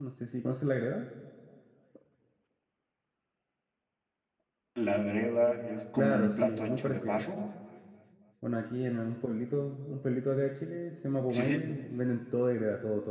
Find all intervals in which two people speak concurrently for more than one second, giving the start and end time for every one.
5.9-7.2

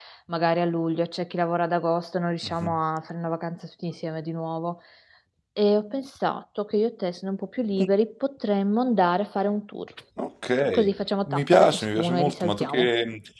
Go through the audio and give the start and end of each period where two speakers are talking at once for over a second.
11.2-12.9

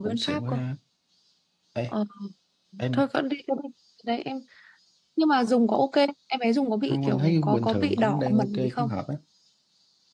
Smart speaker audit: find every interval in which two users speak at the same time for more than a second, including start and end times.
6.9-8.9

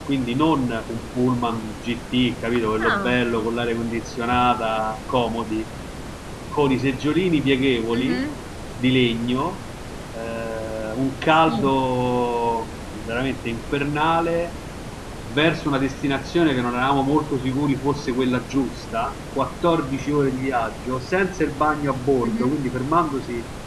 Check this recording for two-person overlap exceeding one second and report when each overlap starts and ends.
none

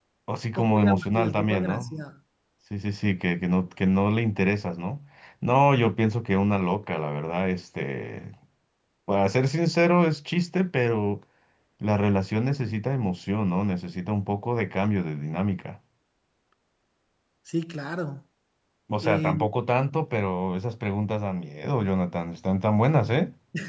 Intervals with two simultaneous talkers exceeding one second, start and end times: 0.6-1.9

